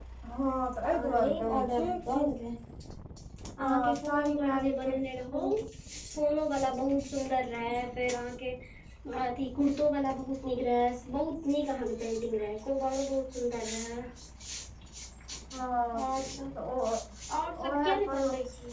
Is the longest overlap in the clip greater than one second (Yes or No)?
Yes